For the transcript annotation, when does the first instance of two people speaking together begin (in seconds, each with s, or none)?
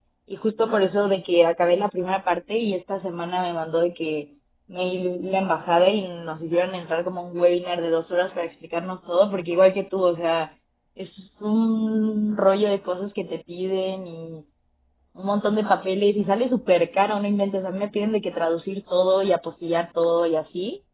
none